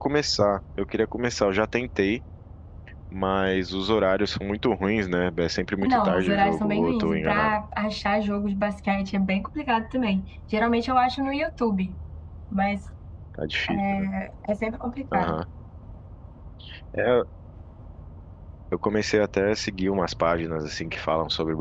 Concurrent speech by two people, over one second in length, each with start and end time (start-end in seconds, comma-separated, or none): 5.9-7.6